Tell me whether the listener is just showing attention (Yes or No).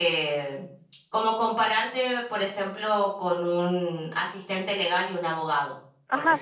No